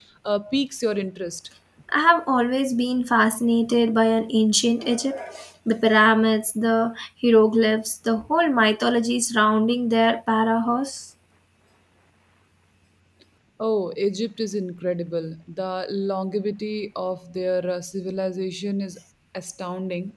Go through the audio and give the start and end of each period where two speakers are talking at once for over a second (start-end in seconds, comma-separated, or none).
none